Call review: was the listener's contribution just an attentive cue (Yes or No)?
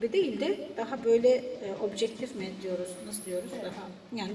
Yes